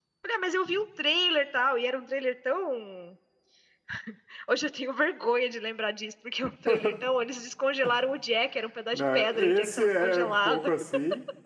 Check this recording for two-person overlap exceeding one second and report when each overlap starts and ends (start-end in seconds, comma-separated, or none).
8.9-10.7